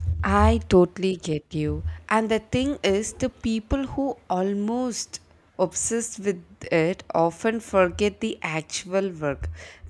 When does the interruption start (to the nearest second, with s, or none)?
none